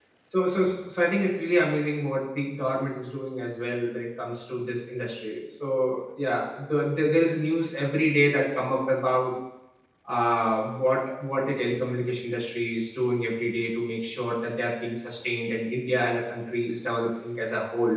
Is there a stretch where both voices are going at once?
No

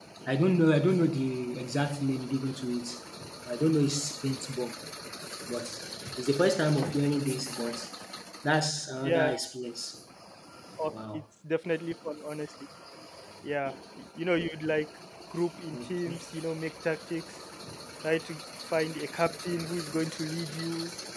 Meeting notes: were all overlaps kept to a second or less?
Yes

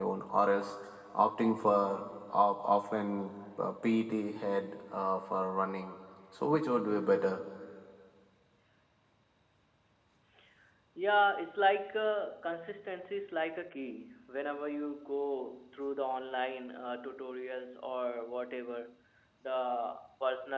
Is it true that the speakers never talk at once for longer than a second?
Yes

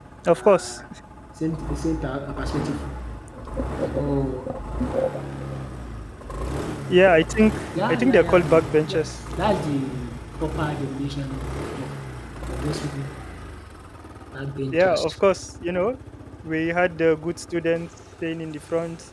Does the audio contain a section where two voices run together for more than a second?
Yes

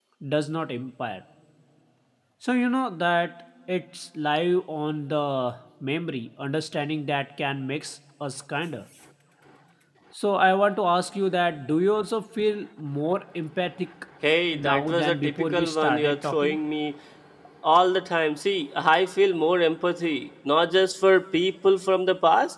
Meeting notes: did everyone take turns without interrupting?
No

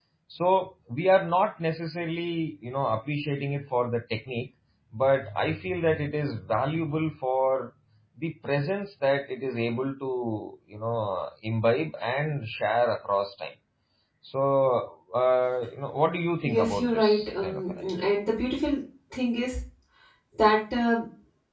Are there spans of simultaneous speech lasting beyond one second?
Yes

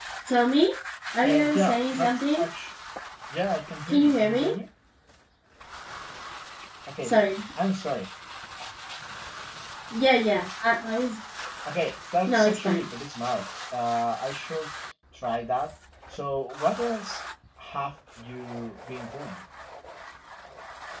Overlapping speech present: Yes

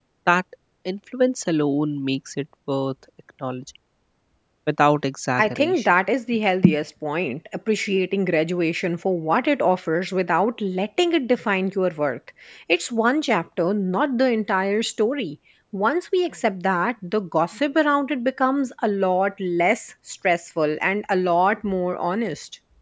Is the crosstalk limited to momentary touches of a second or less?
Yes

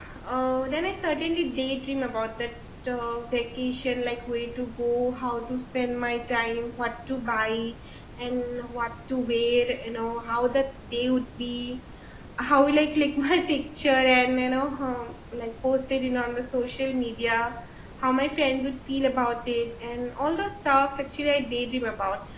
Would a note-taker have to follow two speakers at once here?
No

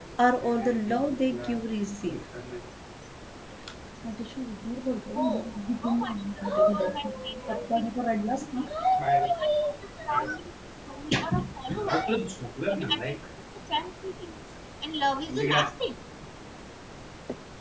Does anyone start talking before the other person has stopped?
Yes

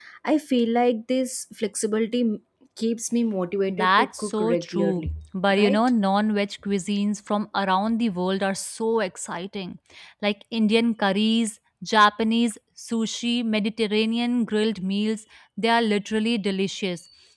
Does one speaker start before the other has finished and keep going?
Yes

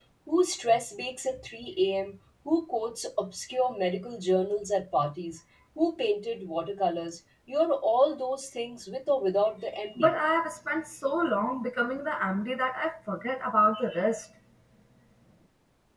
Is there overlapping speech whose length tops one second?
No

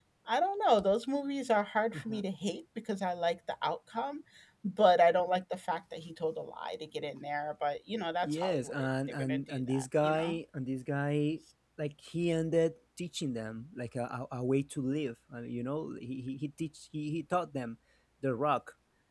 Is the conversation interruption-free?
No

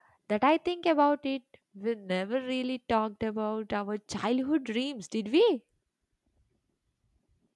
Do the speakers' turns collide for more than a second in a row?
No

